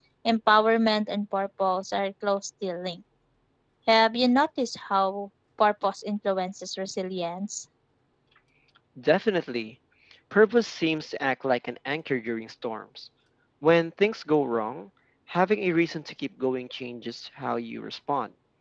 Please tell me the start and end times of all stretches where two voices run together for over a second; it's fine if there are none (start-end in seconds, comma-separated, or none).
none